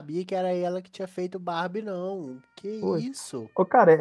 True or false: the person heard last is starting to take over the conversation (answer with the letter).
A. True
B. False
A